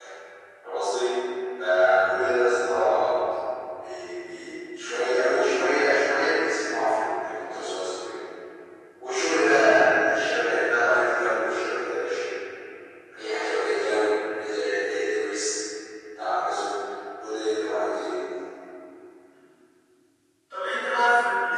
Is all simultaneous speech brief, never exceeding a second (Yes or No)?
Yes